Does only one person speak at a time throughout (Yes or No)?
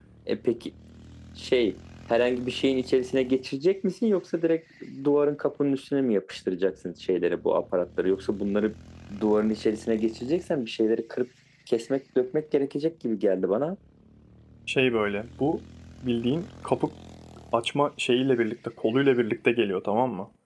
Yes